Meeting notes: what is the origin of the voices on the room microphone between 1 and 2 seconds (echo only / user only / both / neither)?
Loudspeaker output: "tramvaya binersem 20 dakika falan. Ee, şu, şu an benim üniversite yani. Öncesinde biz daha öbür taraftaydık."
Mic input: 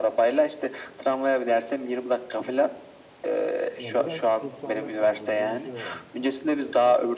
echo only